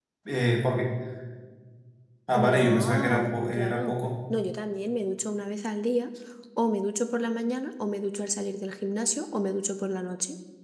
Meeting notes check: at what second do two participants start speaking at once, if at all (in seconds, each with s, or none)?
2.3 s